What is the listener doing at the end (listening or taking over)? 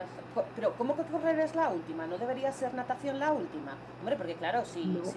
listening